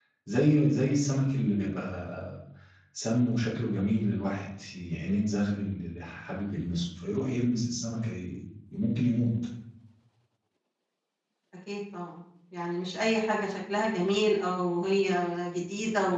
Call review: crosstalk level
none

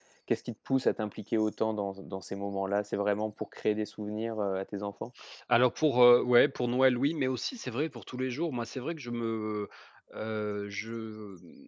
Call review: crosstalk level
none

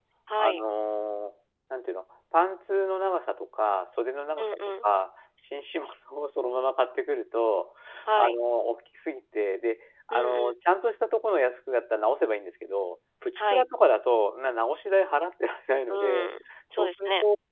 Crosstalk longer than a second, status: none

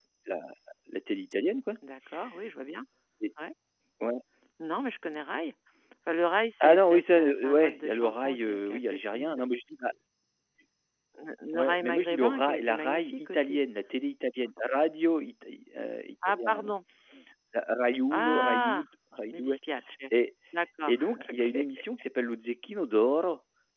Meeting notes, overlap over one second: present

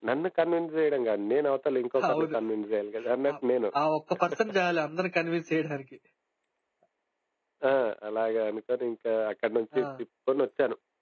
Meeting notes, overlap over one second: none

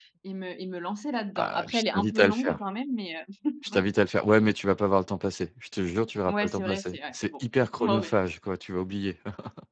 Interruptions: present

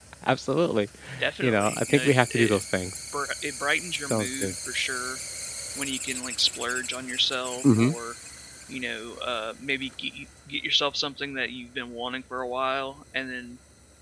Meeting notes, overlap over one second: present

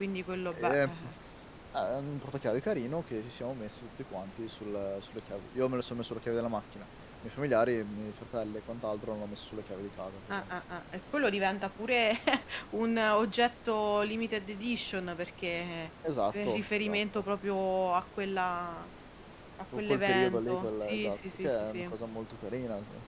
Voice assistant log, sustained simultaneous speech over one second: present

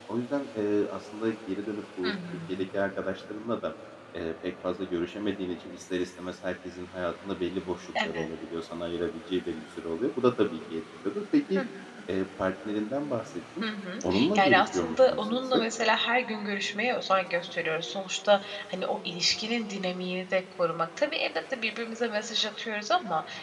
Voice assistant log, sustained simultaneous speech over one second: present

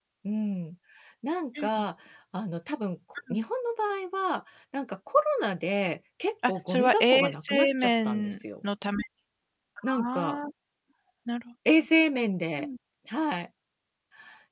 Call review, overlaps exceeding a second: present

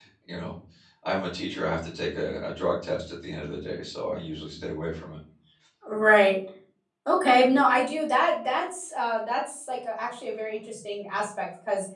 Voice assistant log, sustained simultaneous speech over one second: none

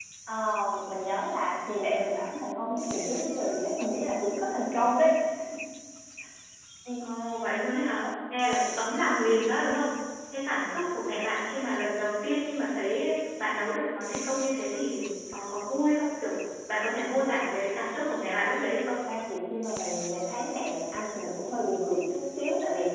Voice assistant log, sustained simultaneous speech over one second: none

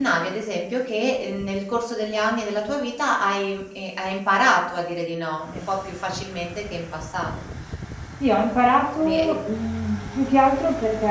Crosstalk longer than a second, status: none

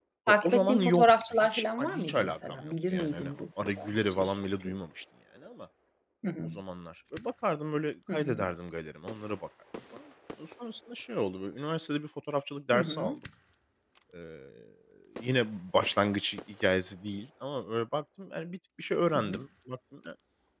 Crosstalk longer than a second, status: present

